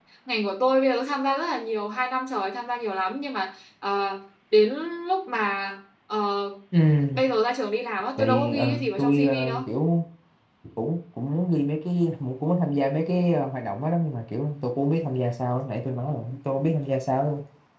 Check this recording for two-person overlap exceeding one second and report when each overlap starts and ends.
8.2-9.6

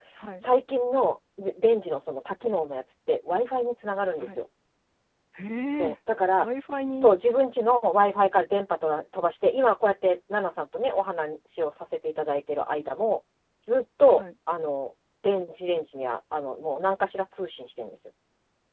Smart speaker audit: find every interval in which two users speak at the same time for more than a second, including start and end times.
none

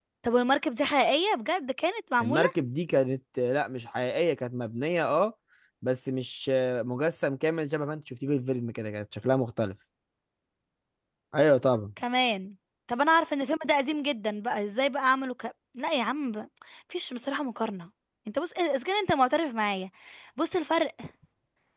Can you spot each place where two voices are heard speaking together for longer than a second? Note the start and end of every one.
none

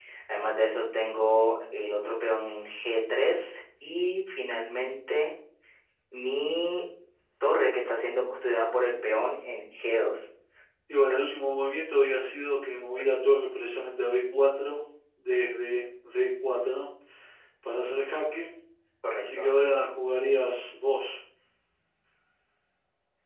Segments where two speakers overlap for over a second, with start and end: none

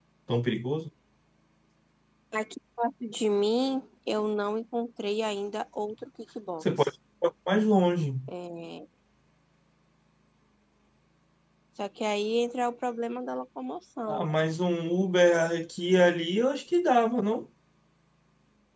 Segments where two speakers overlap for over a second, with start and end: none

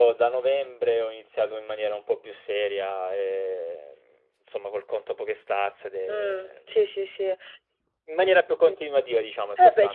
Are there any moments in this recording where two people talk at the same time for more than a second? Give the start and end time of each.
none

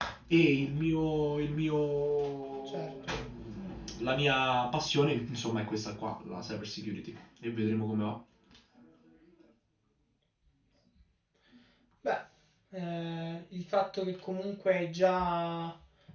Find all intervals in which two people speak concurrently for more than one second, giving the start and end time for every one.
none

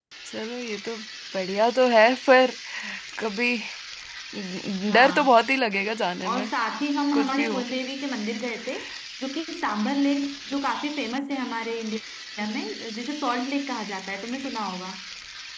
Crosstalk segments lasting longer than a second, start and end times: none

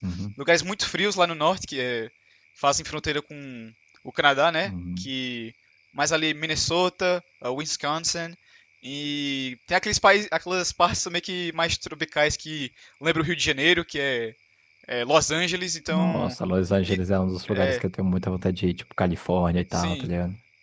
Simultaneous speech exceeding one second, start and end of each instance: none

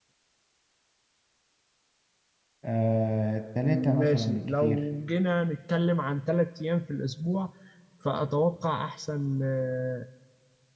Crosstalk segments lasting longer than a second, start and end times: 3.6-4.9

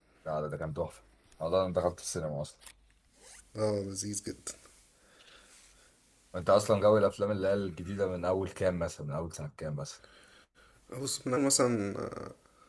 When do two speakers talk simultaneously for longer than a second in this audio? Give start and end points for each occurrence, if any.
none

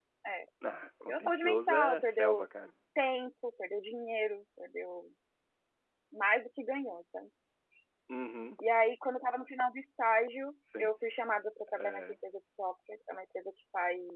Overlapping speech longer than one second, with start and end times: 1.1-2.4

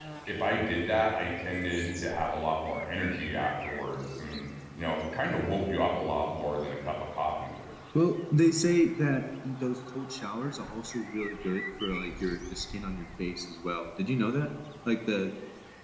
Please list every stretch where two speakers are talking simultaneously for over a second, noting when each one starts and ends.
none

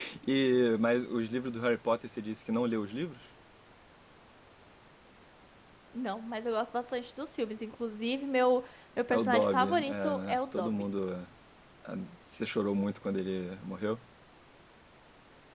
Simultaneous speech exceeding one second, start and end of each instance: 9.1-10.8

